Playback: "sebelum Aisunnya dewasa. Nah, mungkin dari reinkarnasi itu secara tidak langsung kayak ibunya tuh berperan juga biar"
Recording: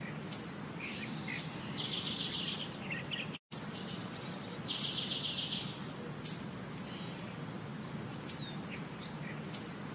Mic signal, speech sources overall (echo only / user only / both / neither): neither